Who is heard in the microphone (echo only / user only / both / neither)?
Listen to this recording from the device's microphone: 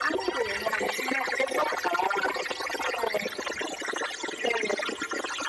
echo only